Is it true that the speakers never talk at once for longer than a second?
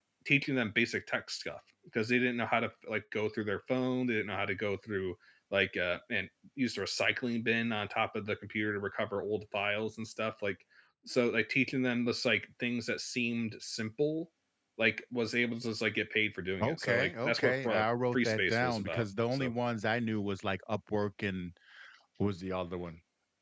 No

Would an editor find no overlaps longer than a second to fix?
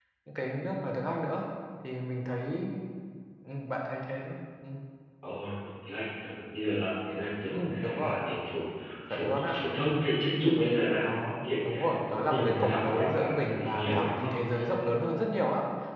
No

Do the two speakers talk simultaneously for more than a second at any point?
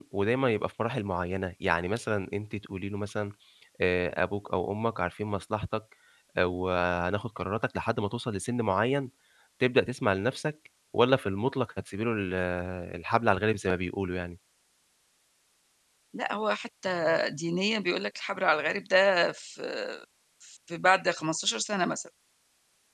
No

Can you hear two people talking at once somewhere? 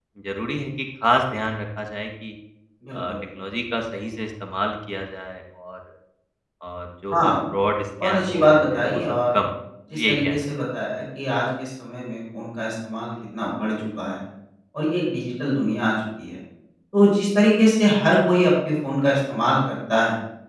Yes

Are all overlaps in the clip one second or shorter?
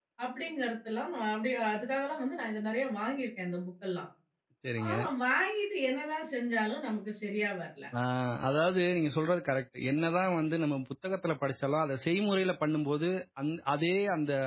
Yes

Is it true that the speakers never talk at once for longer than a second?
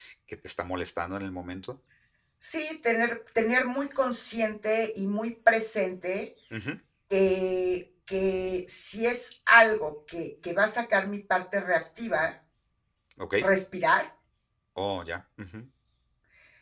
Yes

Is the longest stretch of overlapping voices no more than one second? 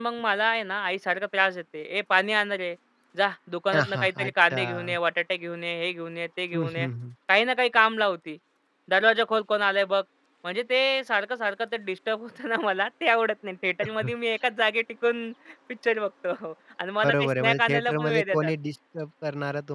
No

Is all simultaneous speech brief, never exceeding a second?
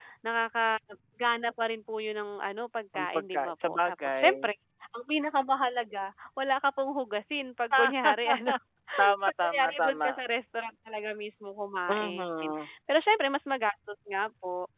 No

